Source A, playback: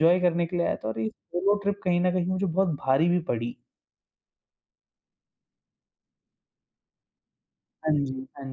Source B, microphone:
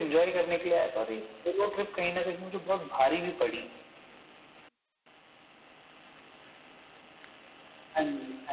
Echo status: present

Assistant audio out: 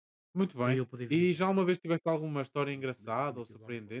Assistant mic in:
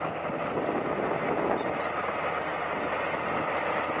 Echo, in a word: none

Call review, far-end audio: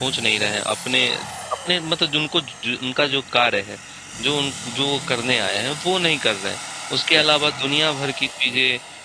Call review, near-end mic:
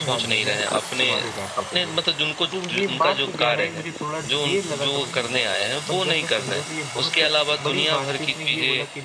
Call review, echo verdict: present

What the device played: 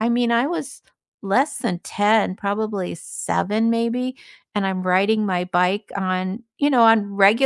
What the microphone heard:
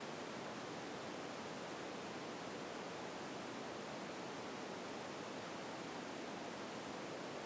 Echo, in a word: none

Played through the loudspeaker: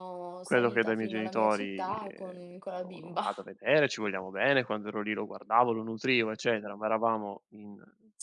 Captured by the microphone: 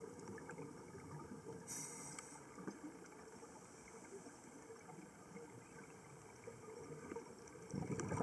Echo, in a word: none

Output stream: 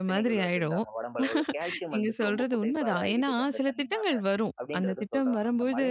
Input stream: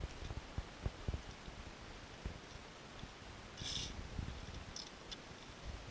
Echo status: none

